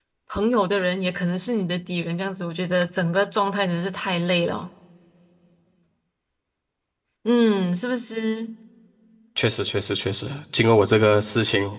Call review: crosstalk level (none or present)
none